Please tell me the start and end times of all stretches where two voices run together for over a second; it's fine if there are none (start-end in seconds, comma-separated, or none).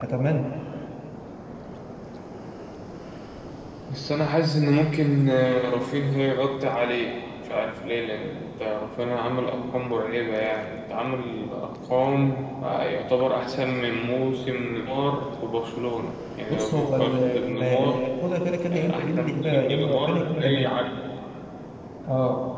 16.5-18.0, 18.7-20.7